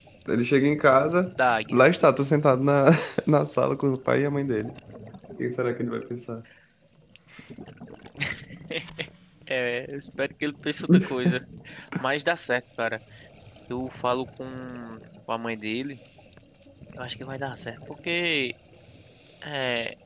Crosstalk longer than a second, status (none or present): none